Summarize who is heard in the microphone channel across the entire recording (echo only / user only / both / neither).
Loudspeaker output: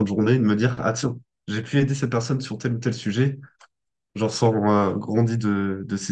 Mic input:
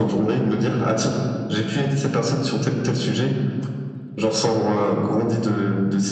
echo only